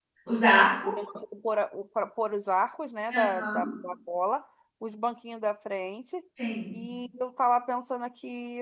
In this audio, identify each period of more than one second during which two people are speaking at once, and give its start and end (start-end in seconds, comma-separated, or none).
none